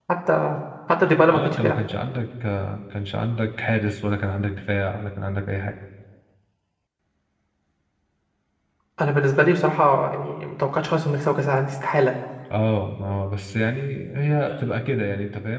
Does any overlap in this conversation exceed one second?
No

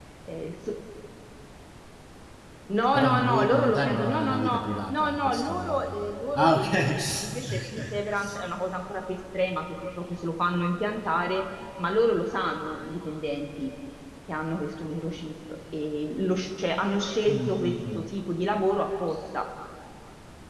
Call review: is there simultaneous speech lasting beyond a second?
Yes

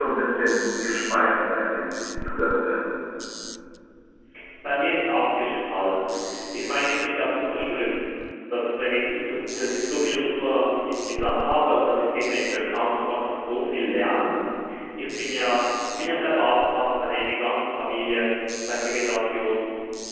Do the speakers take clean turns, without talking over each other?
Yes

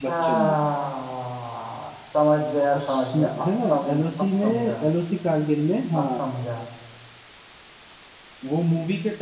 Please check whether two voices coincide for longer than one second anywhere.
Yes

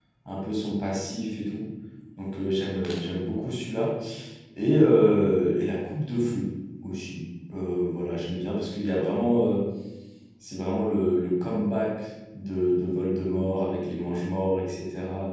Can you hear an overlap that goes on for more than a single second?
No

